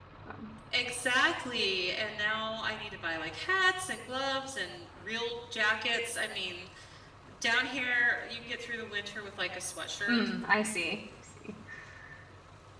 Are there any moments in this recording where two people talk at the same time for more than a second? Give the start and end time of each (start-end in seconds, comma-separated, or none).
none